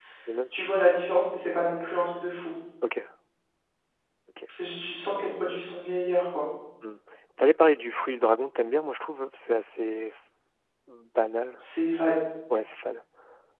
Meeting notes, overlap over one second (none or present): none